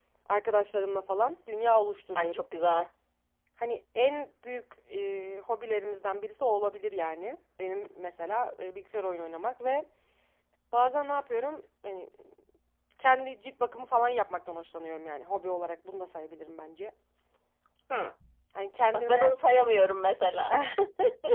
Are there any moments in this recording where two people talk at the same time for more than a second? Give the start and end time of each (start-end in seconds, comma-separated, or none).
none